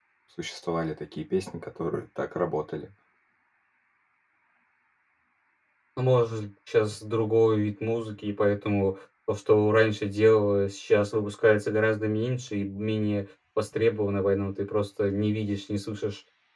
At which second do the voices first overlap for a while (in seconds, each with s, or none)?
none